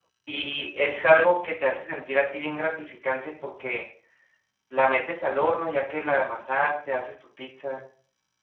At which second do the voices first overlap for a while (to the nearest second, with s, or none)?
none